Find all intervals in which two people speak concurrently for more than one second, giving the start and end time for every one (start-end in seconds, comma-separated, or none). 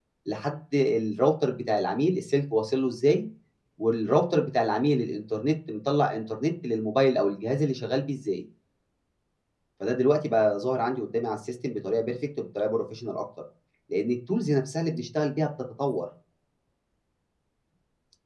none